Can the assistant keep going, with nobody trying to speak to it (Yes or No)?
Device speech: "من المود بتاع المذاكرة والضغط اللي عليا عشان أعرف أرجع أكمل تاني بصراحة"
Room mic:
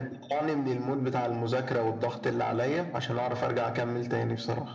Yes